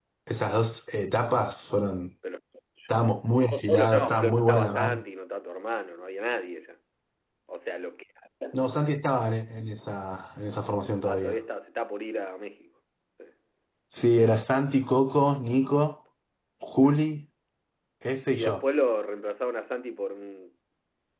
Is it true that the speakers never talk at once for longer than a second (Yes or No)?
No